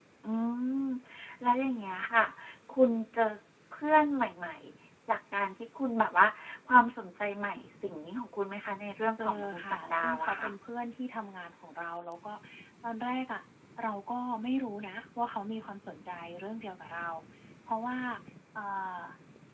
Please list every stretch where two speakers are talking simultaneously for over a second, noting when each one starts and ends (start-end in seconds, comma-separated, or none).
9.2-10.5